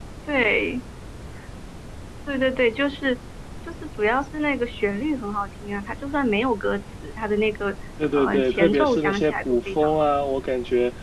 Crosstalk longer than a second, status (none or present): present